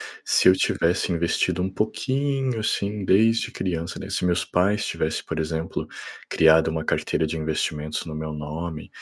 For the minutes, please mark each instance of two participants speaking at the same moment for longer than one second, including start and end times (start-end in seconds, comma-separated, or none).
none